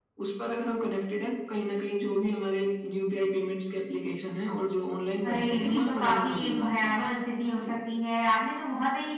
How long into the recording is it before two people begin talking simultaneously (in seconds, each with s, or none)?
5.2 s